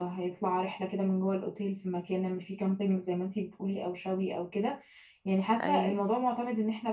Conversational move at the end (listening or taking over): listening